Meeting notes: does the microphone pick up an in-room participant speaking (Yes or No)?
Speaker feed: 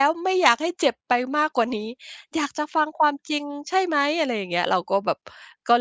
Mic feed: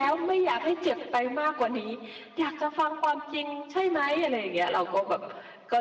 No